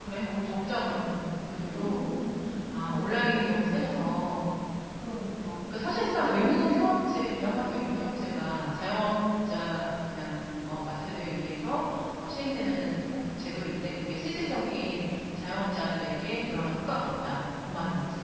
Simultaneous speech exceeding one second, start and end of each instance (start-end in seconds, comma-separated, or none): none